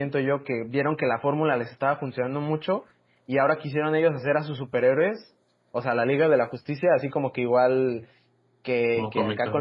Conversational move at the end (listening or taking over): listening